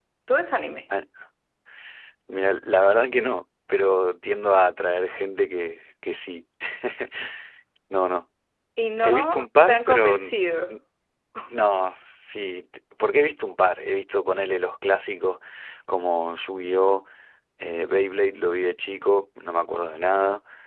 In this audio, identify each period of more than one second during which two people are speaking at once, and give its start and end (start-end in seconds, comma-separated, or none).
9.0-10.3